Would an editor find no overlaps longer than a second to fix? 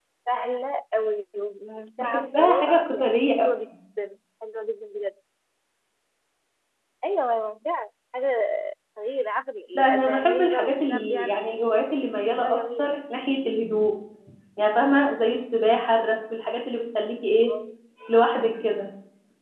No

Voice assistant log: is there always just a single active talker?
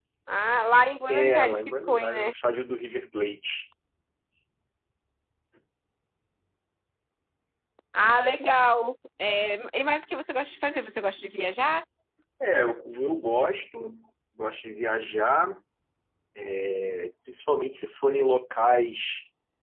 No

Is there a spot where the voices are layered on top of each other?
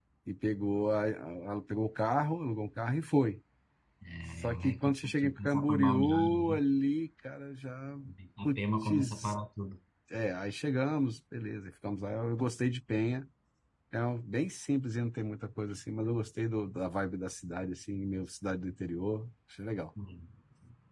Yes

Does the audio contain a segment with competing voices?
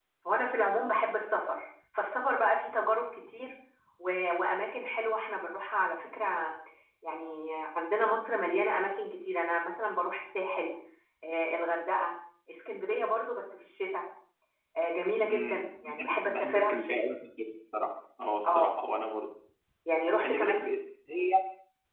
Yes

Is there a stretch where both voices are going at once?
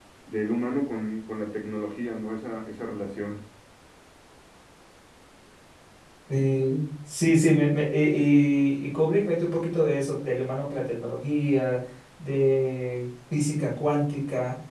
No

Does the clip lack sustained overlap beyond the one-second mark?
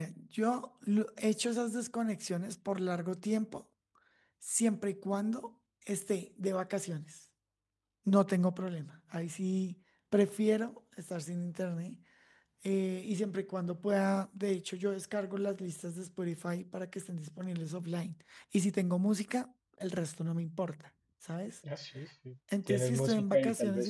No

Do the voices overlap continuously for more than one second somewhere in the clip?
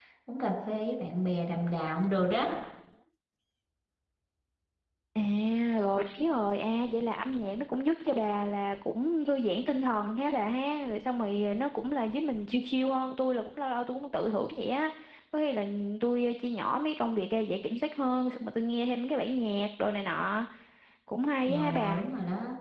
No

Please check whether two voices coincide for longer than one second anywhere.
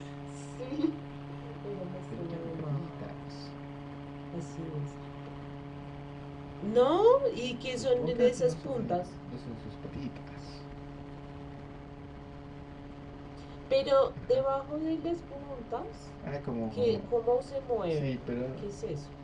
Yes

